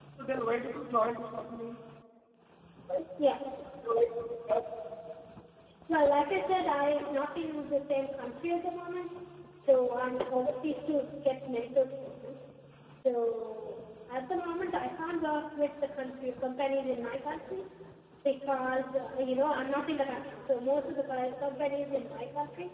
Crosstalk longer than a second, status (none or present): none